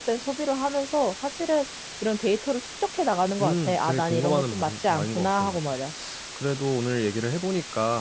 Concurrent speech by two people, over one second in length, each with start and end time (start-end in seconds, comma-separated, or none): 3.4-5.6